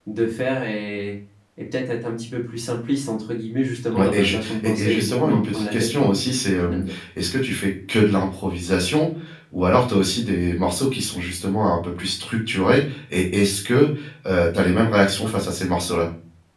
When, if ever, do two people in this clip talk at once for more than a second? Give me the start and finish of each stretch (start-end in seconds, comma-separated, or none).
3.9-6.1